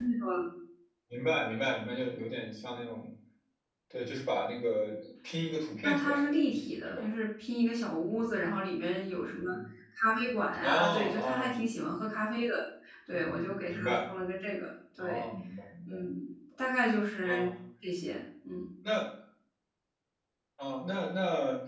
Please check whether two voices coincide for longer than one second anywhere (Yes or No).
Yes